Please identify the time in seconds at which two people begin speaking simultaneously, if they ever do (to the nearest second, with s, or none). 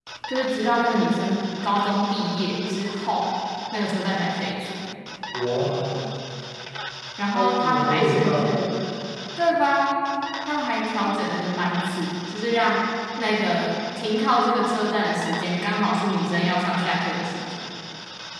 7 s